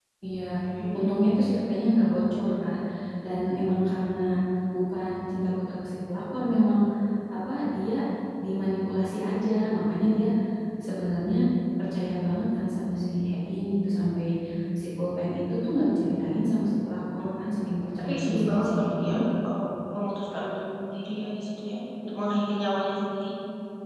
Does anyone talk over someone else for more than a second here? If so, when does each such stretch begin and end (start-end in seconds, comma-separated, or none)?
18.0-19.2